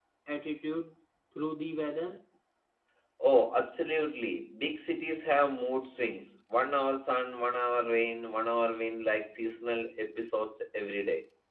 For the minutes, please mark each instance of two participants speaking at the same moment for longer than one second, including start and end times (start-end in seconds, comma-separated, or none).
none